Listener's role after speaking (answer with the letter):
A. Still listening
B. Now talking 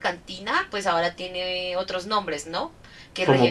A